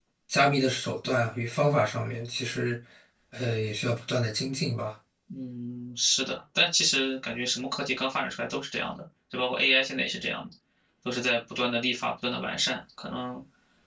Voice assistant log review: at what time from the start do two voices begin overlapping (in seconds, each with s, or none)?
none